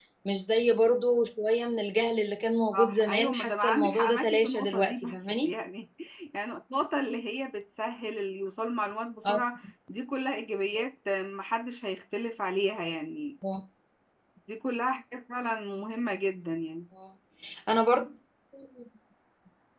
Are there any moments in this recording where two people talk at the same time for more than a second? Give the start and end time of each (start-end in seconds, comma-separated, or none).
2.7-5.5